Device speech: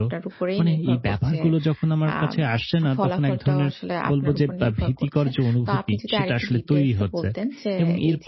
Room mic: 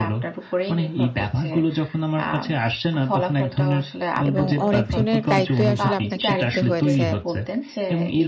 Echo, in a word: present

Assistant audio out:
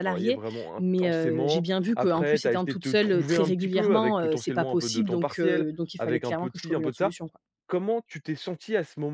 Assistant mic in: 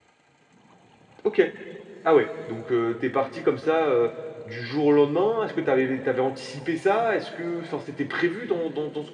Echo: none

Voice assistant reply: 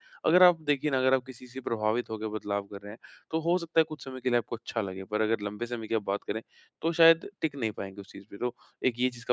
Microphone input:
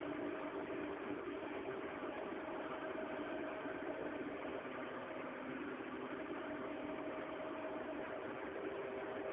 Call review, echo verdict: none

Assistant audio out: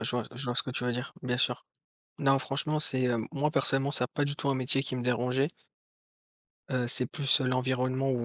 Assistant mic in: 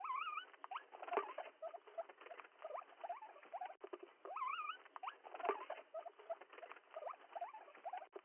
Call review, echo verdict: none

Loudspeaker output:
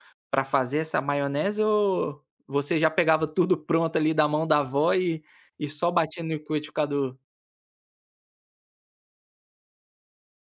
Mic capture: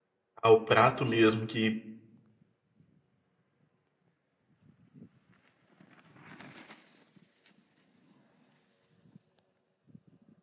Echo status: none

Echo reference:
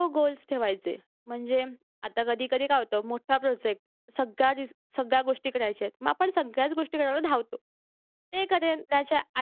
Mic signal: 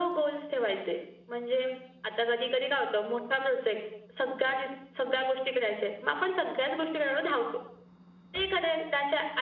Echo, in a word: present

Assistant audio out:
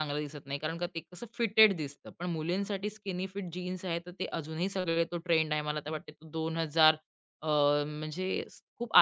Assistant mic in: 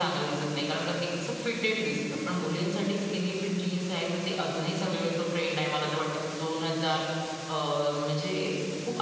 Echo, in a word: present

